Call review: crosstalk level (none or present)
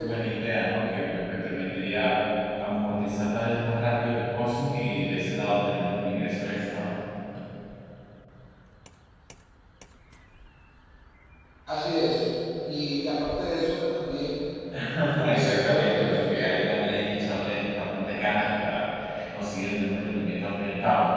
present